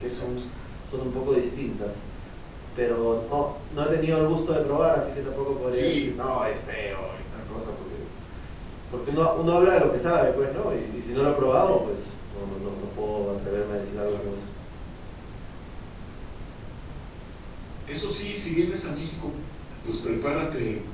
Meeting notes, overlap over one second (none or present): none